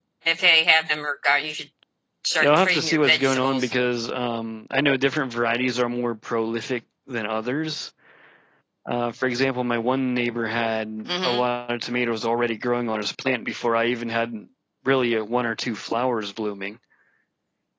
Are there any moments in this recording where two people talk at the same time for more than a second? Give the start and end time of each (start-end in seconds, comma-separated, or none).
2.4-3.7